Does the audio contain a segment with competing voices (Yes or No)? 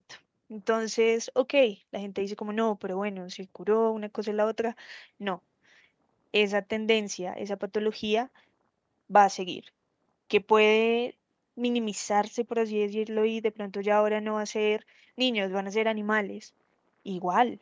No